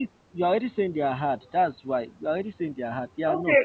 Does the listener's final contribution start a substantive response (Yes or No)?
Yes